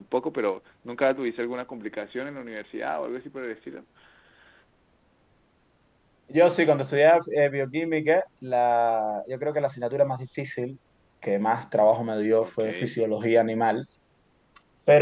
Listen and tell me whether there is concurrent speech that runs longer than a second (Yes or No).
No